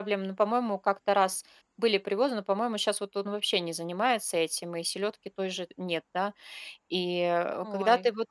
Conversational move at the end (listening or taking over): listening